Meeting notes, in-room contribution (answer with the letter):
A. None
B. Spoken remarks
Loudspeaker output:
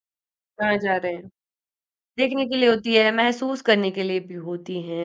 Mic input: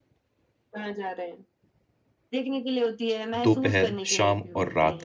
B